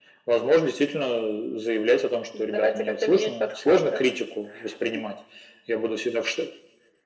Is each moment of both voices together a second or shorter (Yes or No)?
No